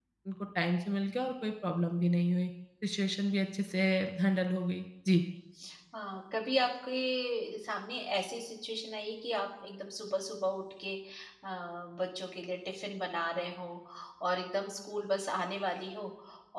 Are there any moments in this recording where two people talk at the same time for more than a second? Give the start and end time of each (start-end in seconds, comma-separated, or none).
none